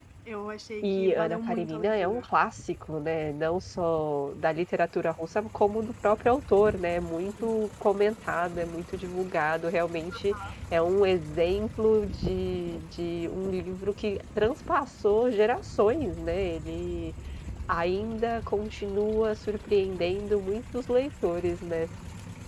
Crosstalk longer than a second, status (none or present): present